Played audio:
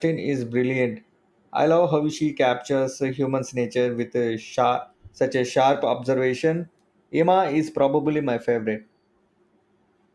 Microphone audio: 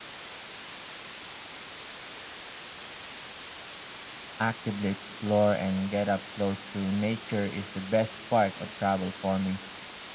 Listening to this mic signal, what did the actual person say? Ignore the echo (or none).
actively explore and get up close to nature is the best part of travel for me.